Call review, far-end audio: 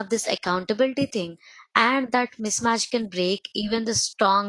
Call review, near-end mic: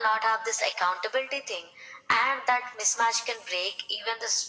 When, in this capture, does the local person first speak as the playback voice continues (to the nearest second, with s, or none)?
none